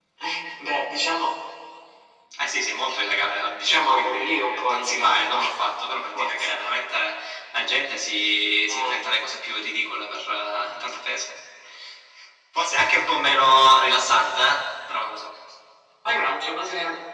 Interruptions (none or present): present